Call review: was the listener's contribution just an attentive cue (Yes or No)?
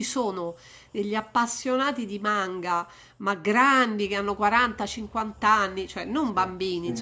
Yes